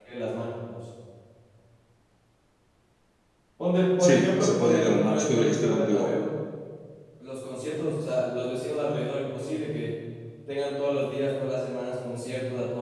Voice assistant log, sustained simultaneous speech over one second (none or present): present